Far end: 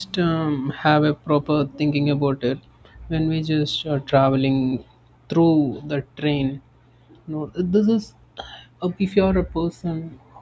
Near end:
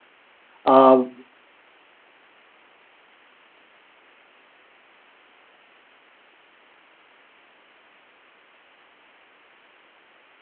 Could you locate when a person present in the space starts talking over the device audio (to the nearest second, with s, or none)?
1 s